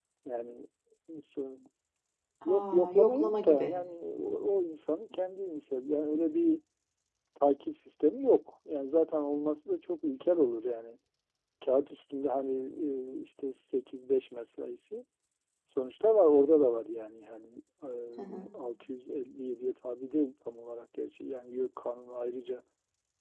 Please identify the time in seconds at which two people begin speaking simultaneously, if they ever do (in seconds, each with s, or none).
2.5 s